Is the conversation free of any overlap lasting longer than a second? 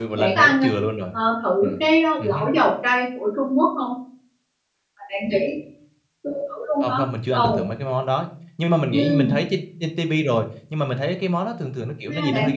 Yes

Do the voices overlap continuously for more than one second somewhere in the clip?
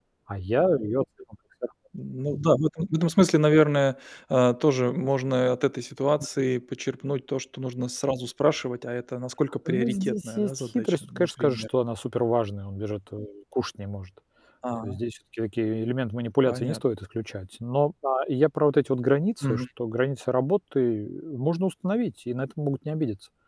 Yes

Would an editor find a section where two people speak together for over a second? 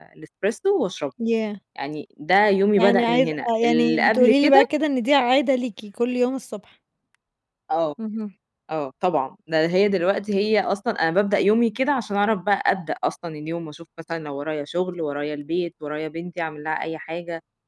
Yes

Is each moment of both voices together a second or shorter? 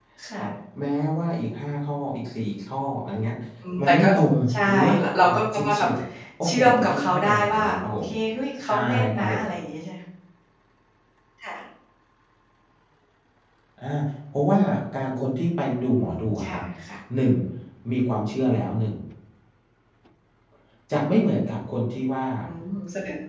No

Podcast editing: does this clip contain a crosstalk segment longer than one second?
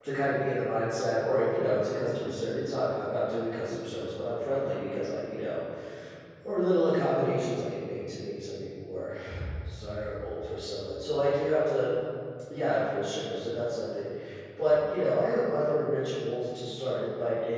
No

